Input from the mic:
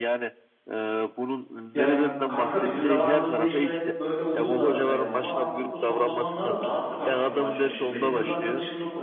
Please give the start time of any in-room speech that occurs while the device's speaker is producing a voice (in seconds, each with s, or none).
1.7 s